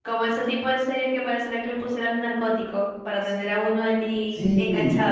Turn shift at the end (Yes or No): Yes